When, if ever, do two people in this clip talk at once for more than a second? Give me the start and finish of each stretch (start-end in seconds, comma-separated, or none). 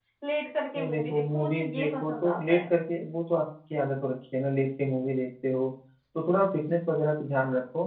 0.8-2.6